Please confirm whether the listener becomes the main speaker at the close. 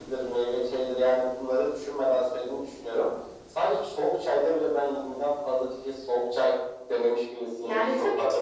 Yes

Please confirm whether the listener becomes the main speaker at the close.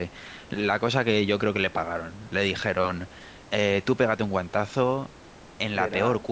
No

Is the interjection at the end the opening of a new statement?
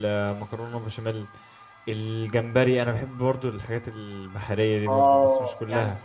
Yes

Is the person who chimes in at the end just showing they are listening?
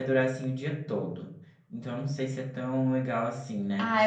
No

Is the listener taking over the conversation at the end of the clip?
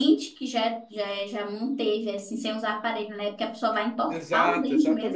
Yes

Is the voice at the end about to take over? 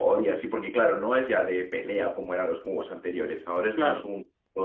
No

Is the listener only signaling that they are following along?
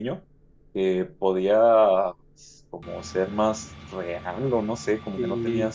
Yes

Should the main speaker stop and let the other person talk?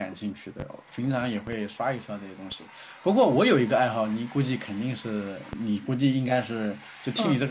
Yes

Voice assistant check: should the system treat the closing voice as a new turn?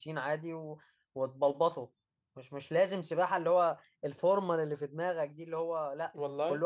No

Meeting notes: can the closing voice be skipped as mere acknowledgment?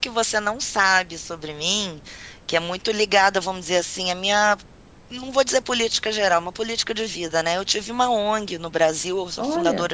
Yes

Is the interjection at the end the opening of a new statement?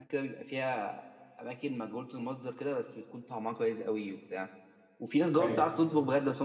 No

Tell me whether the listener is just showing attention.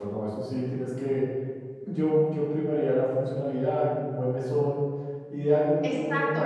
No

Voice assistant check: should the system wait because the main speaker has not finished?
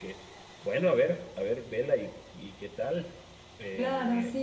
No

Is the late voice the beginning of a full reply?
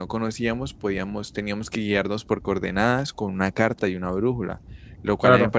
No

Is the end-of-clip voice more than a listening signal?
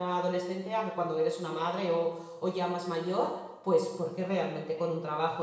No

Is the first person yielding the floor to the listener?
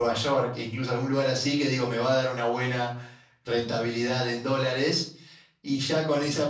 No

